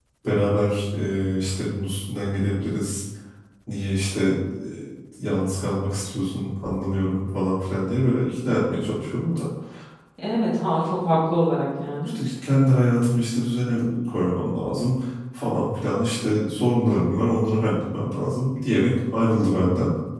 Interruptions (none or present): none